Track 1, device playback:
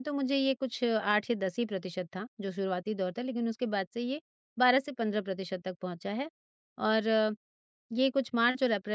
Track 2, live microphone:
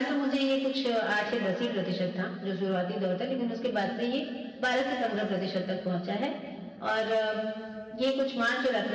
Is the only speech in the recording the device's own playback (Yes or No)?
Yes